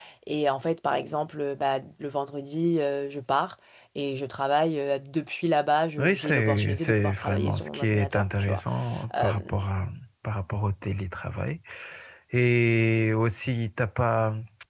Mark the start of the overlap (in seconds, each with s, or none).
6.0 s